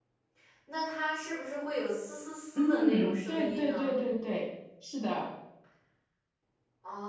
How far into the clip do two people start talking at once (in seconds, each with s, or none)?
2.5 s